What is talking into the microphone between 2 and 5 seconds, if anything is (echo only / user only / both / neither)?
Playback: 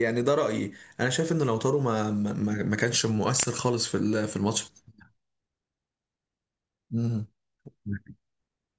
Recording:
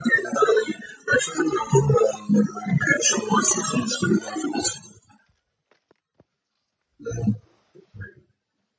echo only